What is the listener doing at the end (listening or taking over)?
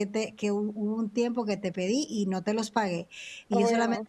listening